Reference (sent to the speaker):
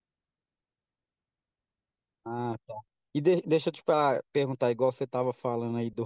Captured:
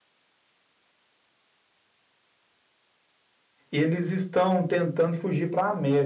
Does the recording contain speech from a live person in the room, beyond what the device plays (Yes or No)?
Yes